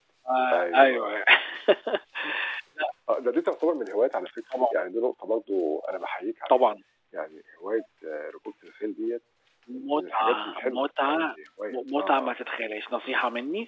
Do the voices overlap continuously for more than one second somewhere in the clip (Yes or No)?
Yes